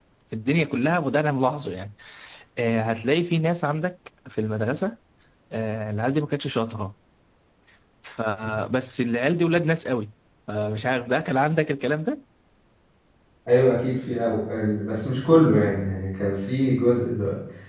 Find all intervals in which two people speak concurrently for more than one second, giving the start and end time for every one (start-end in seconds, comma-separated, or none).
none